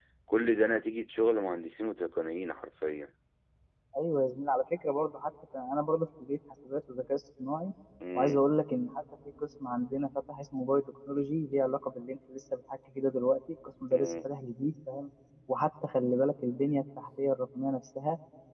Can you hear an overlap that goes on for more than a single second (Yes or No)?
No